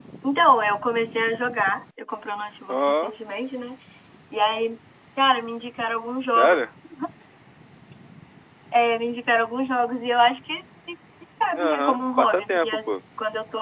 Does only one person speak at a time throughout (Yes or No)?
No